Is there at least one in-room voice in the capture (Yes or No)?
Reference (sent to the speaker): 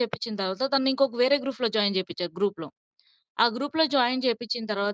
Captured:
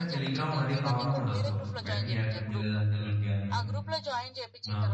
Yes